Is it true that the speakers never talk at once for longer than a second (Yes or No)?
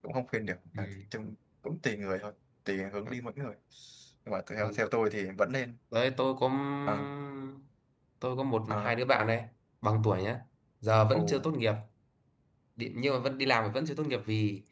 Yes